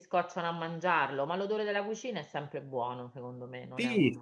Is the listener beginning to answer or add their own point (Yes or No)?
Yes